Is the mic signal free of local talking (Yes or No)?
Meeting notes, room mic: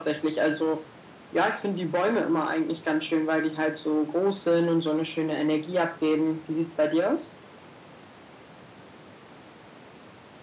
Yes